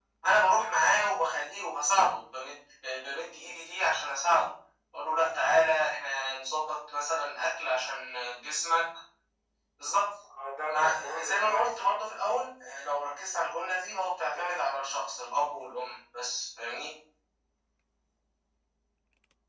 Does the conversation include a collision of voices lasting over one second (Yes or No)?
Yes